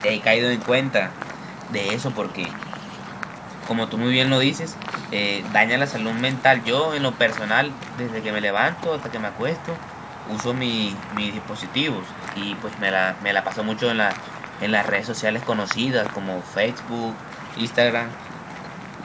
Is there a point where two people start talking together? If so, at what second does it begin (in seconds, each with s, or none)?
none